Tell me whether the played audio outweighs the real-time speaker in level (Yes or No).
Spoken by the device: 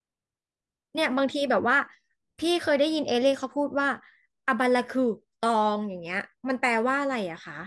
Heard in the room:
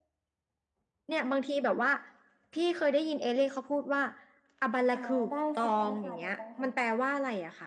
Yes